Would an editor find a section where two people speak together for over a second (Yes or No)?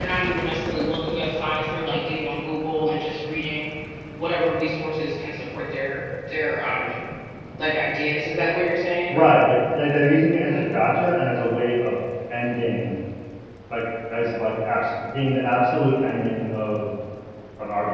No